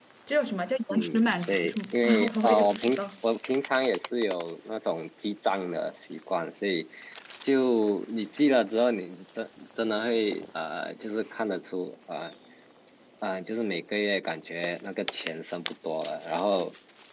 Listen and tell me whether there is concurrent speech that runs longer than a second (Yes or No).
Yes